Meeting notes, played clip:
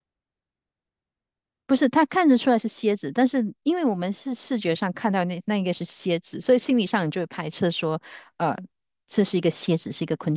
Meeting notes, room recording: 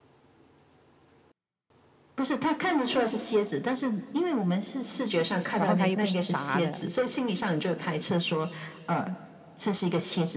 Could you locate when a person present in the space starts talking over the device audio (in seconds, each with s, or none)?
5.6 s